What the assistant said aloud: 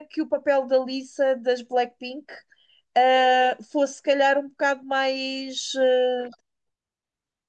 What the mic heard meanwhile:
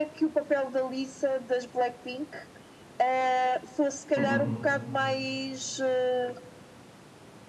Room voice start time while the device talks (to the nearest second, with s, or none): 4 s